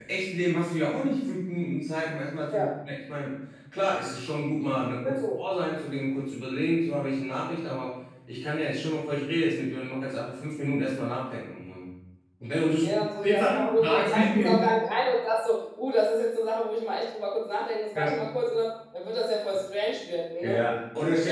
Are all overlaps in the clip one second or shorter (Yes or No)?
No